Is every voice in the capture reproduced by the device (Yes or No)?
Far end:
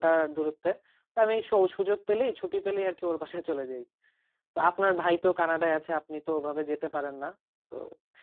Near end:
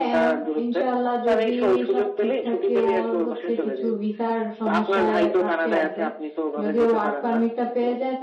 No